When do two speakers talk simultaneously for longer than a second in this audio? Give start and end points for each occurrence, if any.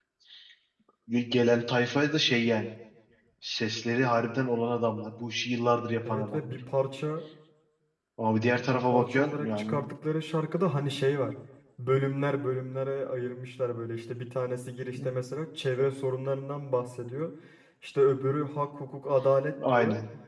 8.6-9.9

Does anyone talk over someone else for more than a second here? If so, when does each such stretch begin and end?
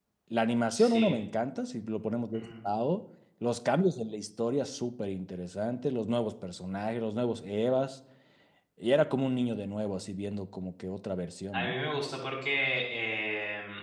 none

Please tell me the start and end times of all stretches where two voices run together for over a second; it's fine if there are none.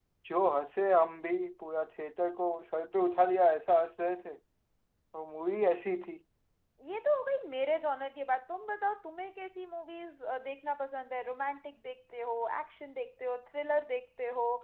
none

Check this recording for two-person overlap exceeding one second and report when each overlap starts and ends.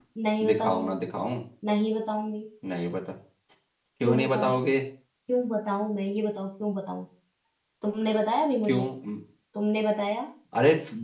none

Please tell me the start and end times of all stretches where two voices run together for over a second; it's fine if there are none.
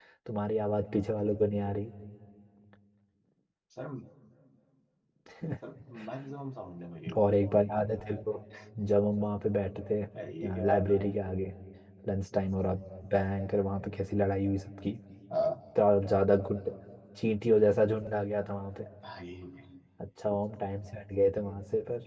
none

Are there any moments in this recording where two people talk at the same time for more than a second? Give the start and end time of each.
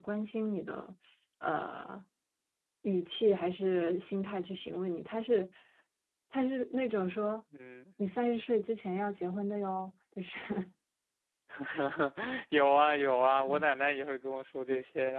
none

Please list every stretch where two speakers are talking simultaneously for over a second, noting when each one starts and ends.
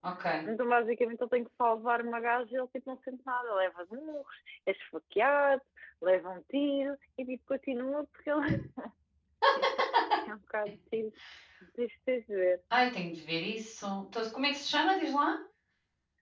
none

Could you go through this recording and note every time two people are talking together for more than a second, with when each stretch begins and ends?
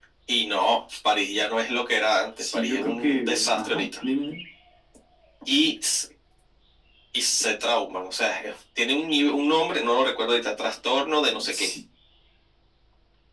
2.5-3.9

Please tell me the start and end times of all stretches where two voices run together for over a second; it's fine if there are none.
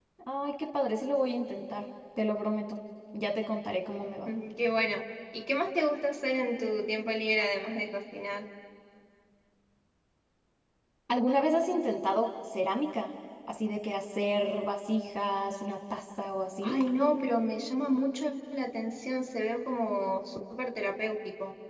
none

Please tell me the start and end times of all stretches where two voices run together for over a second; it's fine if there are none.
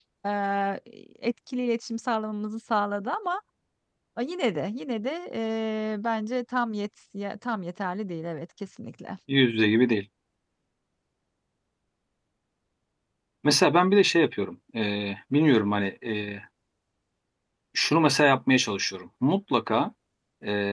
none

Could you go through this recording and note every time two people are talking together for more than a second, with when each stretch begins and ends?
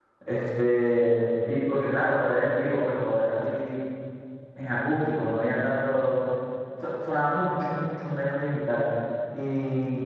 none

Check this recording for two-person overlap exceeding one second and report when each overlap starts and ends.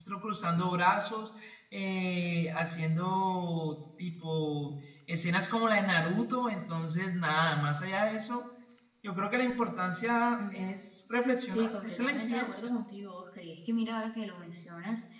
11.5-12.7

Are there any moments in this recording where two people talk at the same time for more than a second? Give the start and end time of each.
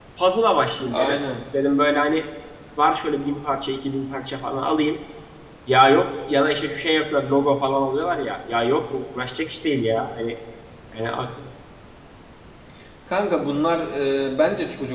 none

